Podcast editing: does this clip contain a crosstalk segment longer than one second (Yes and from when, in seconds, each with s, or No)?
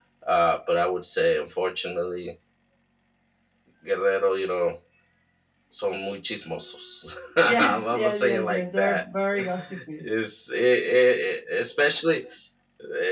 Yes, from 7.4 s